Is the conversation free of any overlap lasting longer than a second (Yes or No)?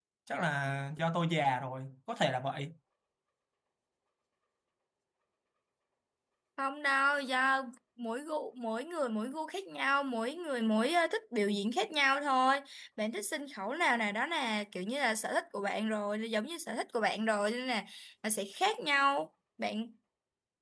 Yes